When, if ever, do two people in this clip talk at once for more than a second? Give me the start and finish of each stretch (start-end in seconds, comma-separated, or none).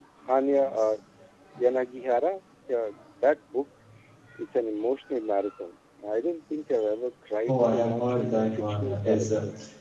7.5-9.3